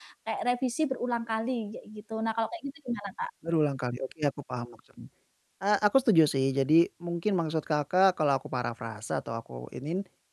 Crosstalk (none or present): none